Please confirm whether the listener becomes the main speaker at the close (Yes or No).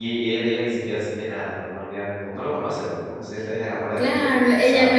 Yes